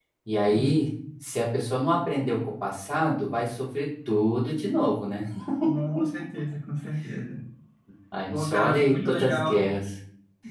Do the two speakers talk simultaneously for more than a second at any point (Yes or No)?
Yes